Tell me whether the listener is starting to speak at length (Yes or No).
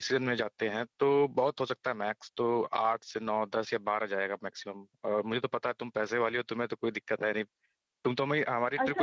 Yes